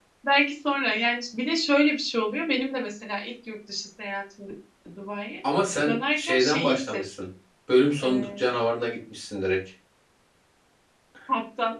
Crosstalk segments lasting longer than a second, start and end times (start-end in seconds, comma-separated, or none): 5.8-7.3